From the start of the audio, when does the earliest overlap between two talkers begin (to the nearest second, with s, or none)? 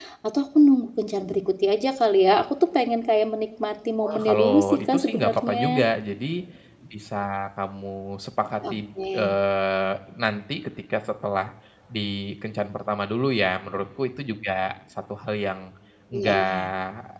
4 s